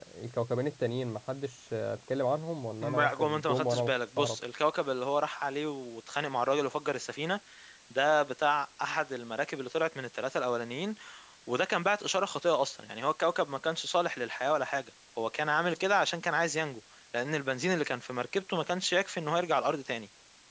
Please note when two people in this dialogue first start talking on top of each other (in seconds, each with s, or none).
2.8 s